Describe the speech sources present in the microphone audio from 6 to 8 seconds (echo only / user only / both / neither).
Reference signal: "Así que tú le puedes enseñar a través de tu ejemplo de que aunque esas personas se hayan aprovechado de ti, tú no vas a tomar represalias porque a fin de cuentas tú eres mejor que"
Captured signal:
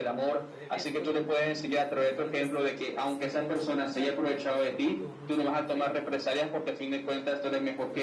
both